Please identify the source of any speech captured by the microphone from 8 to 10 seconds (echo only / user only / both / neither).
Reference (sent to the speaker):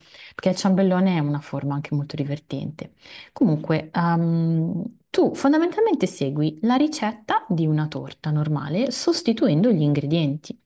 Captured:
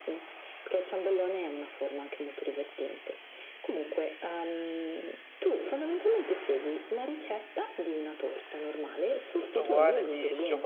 both